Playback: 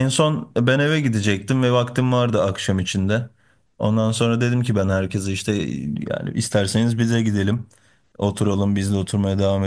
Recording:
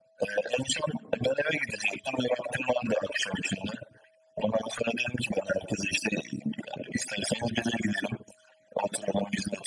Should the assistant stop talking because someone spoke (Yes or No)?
No